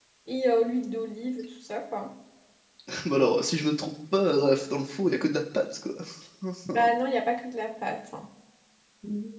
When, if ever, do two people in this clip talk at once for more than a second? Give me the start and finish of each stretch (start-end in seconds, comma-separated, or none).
none